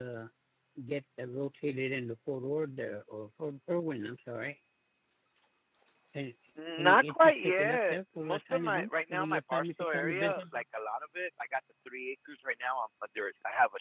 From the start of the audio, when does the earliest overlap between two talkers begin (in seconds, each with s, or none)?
6.8 s